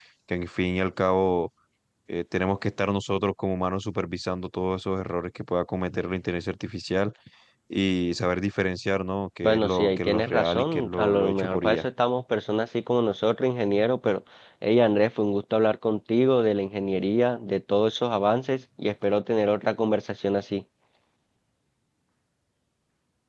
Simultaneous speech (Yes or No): Yes